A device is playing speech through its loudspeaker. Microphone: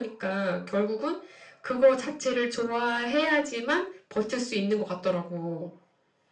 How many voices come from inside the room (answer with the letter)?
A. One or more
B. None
B